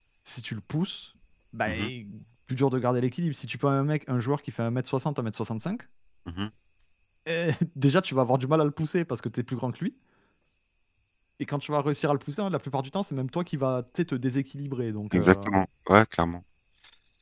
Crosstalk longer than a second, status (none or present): none